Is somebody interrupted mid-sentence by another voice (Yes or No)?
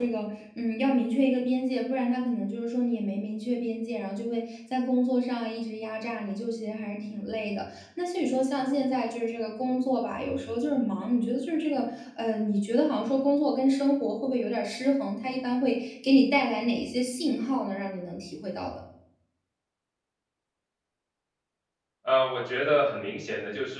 No